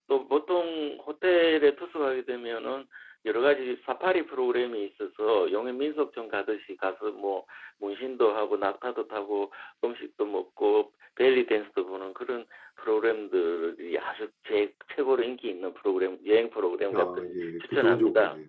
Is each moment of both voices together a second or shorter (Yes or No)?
No